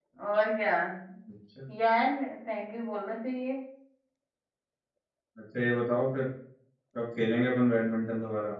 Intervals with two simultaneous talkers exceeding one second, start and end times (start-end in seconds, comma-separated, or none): none